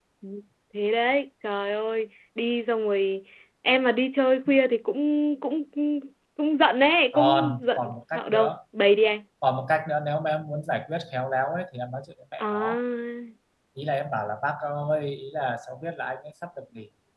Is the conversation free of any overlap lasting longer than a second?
No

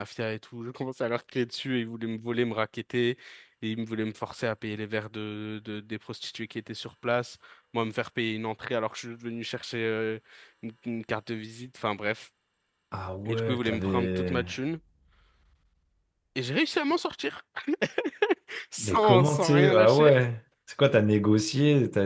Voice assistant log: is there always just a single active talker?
No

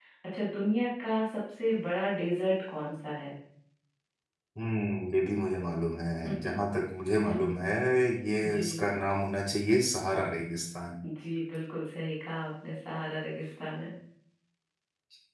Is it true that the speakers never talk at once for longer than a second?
Yes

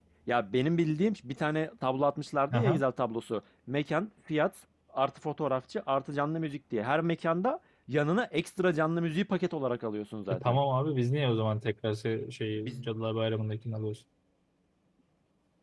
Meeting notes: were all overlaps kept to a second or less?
Yes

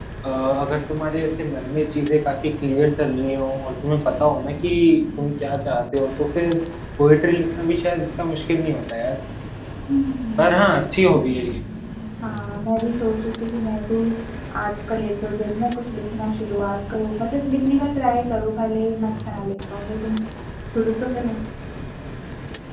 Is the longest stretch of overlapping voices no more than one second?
Yes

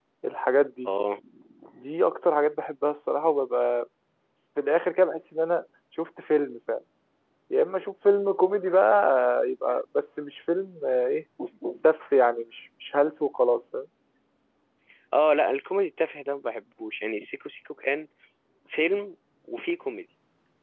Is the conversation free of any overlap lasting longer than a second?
Yes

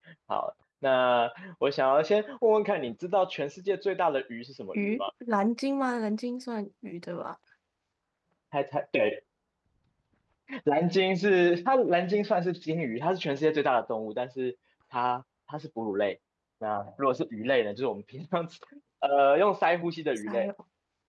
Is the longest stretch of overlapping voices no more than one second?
Yes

